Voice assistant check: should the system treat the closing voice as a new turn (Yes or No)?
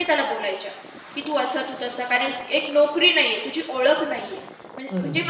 No